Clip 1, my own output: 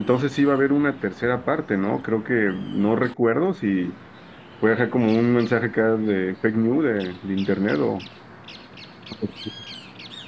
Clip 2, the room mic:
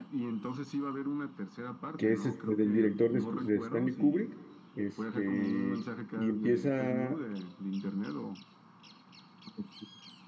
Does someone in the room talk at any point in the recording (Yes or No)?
Yes